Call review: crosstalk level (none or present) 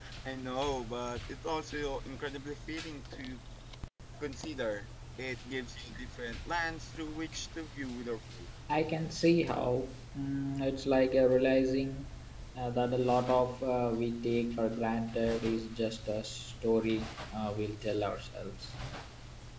none